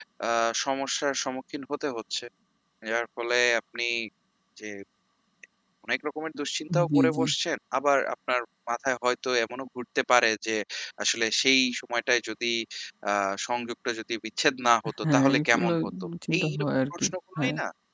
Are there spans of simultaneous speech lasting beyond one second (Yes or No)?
Yes